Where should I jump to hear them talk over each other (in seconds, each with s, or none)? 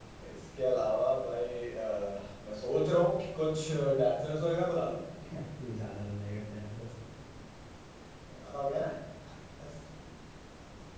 none